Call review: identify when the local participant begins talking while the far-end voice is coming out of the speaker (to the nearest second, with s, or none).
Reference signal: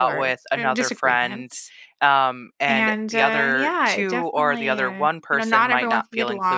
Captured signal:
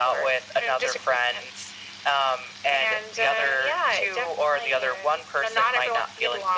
none